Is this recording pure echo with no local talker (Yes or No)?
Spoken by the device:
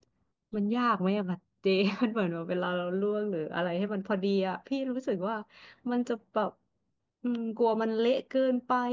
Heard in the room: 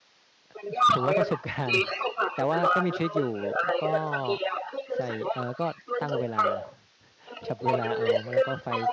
No